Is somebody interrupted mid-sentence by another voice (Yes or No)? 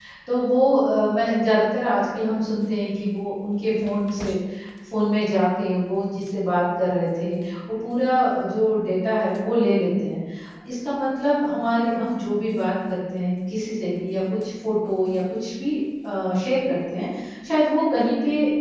No